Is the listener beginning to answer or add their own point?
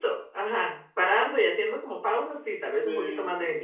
Yes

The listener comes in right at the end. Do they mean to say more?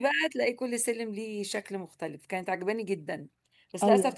No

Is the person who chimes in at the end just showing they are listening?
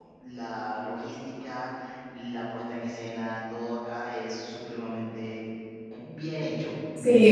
No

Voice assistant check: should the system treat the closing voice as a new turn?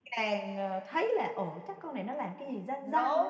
Yes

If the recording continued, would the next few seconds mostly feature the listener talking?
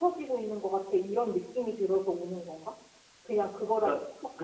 Yes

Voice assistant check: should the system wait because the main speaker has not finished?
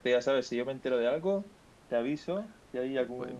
Yes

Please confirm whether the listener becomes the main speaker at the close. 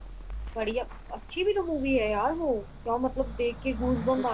Yes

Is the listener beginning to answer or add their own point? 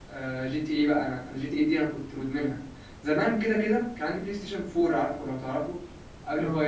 No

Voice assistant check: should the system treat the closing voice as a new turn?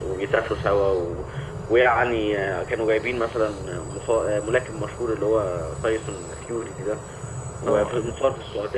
No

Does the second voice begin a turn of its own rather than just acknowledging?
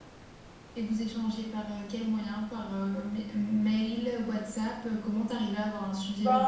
Yes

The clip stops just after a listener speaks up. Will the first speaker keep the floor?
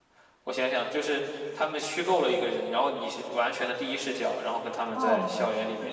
No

